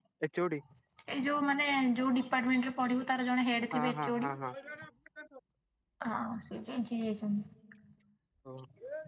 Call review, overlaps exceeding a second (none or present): none